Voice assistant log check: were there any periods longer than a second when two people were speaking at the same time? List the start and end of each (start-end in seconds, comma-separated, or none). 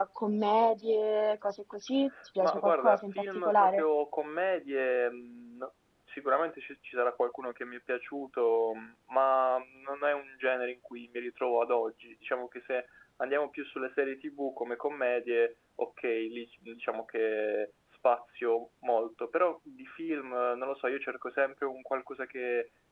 2.4-3.8